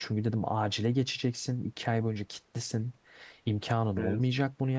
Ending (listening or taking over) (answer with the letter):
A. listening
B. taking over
A